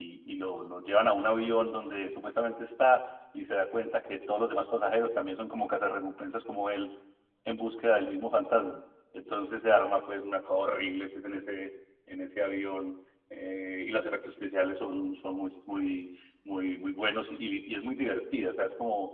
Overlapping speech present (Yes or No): No